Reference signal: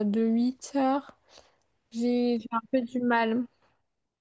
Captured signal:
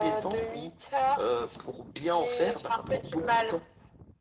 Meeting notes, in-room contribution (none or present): present